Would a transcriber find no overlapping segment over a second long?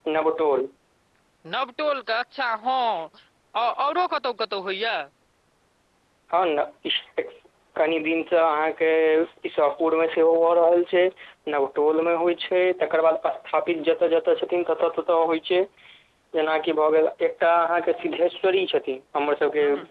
Yes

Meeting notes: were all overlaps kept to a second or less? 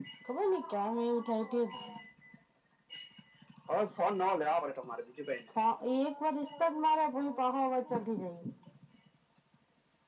Yes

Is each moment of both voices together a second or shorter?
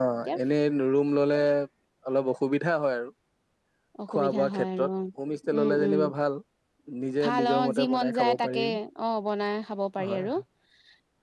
No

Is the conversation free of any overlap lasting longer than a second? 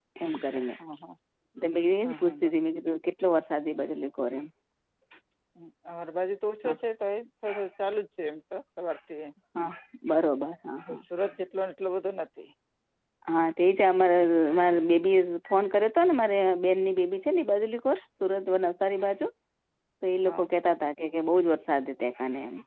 Yes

